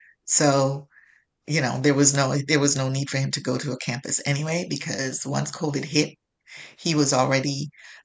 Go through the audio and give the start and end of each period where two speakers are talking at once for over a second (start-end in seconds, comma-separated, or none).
none